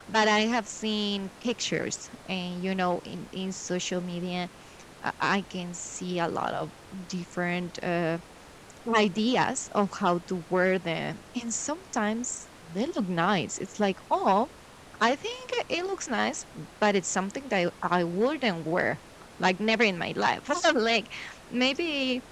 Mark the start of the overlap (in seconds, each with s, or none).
none